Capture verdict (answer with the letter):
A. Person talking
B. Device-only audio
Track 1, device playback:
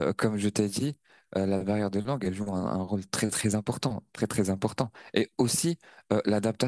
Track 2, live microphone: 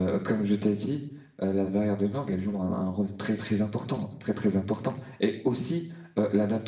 B